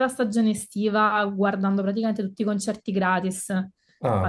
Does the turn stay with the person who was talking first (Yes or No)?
Yes